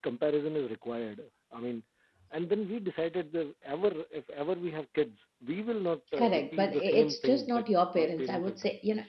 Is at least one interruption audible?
Yes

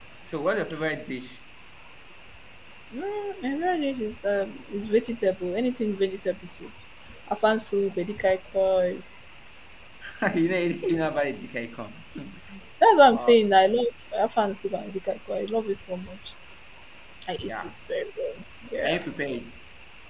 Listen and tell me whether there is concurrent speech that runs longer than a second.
No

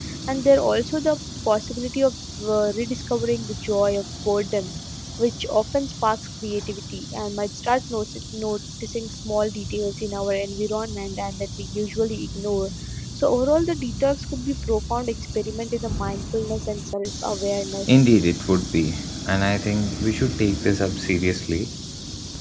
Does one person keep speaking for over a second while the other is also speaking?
No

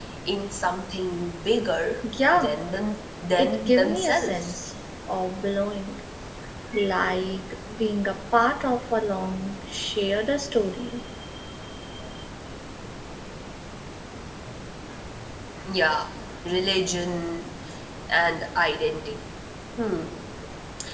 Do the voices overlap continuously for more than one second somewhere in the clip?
Yes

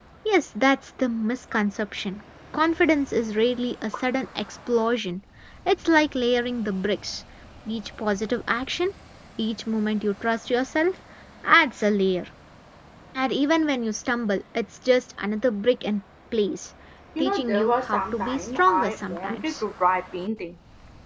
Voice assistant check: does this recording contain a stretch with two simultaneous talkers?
Yes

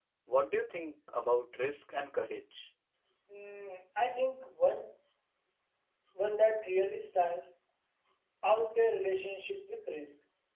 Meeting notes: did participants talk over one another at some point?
No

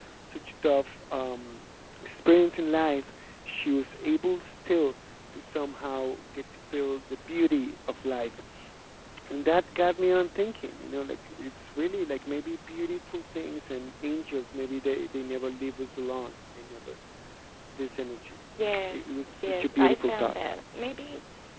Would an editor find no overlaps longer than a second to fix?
No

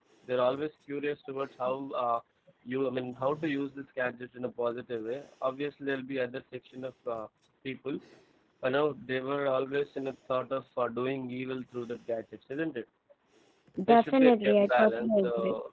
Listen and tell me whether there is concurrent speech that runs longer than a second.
Yes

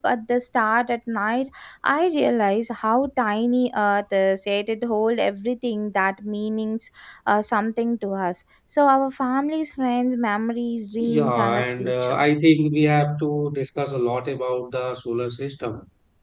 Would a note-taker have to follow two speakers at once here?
Yes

